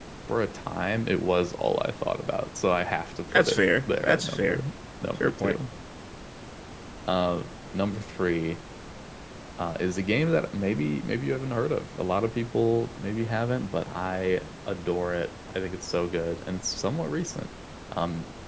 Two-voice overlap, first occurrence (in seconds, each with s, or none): 3.3 s